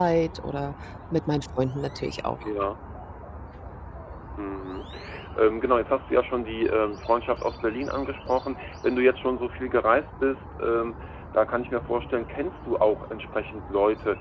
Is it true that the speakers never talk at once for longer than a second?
Yes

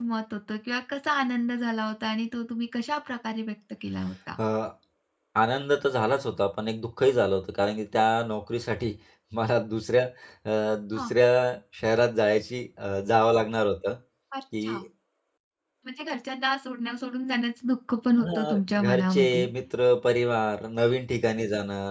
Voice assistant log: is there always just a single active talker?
No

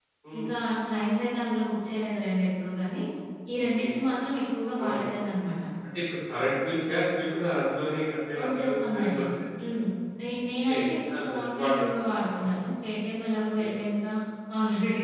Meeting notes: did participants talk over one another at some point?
Yes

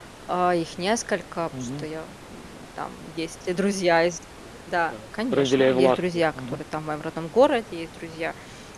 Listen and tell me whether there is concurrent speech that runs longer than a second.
Yes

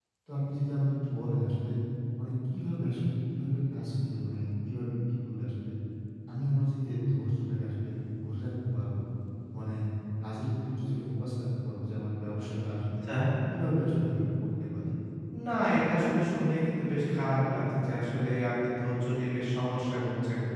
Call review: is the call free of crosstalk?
Yes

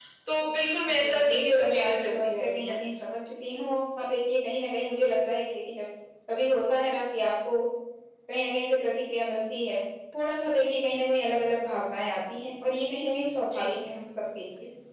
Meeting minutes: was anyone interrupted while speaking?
Yes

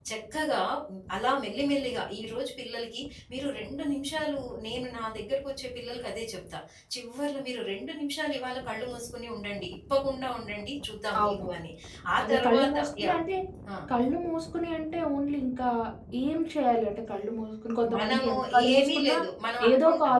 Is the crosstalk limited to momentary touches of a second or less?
No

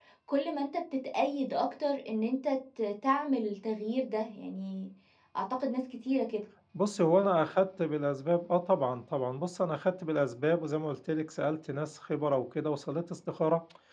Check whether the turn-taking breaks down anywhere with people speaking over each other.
No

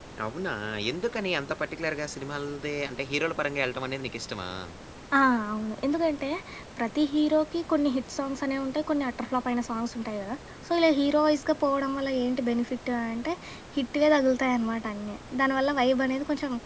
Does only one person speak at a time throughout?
Yes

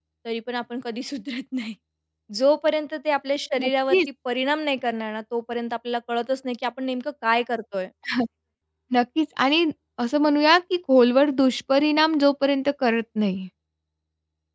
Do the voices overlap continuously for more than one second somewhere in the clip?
No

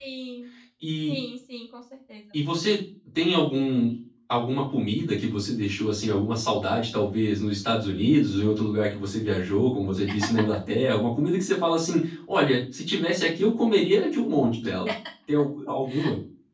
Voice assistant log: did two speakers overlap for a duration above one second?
No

